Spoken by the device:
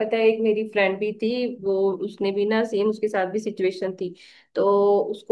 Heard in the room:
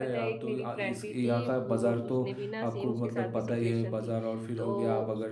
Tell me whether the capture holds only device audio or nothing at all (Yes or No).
No